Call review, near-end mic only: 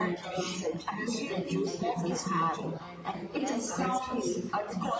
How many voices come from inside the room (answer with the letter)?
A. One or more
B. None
A